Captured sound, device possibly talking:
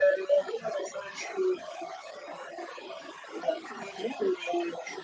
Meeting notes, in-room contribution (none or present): none